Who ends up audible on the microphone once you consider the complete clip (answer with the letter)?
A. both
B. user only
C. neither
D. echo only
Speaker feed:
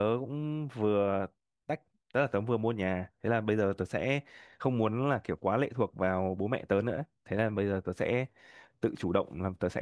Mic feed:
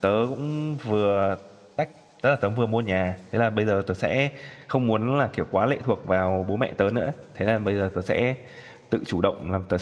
D